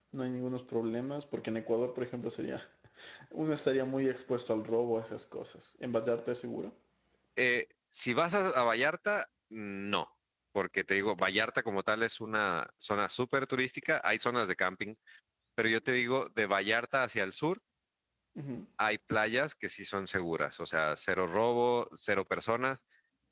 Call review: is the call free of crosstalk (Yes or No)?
Yes